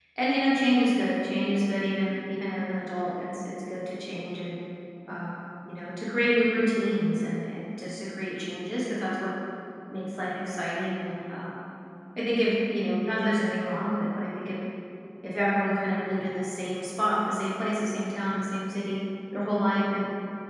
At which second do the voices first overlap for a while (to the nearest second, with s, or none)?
none